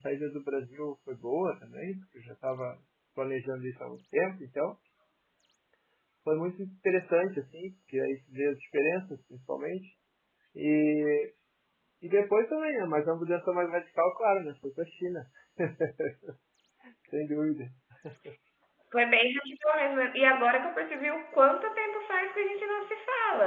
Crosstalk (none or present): none